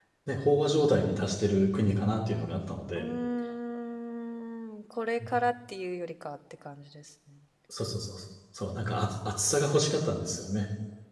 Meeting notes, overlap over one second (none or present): none